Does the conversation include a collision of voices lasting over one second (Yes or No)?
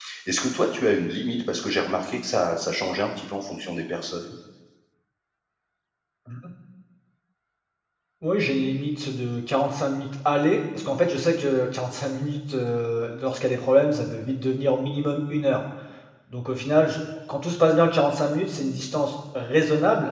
No